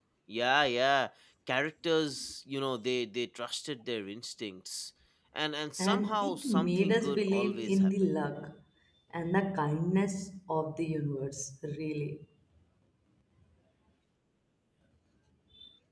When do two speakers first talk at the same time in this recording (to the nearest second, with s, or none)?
6 s